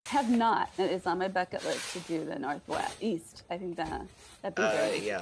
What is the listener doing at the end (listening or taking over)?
taking over